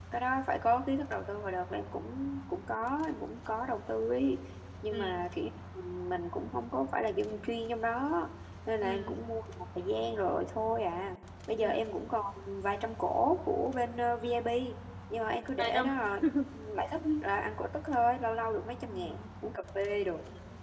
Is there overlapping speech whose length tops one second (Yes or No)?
No